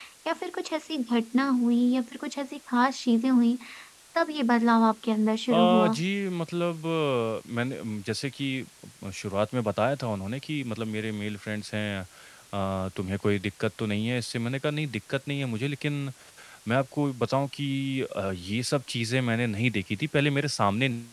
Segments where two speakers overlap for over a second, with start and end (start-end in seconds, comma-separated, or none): none